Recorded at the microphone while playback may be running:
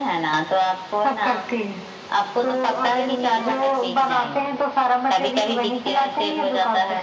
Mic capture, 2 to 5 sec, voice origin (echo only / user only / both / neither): both